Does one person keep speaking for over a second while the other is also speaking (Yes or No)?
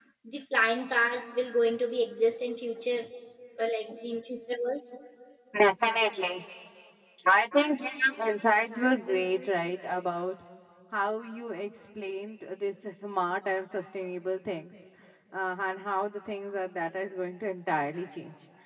No